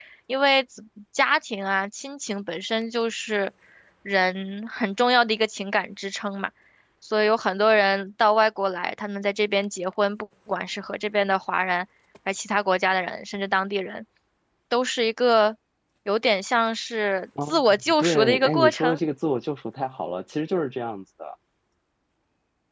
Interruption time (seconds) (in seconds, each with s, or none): 17.4 s